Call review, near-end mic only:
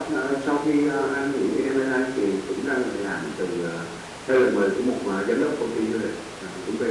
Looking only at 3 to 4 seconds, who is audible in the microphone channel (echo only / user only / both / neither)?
echo only